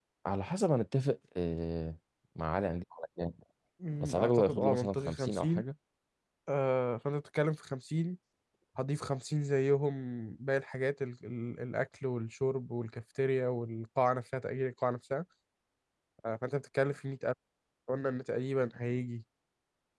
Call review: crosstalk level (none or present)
present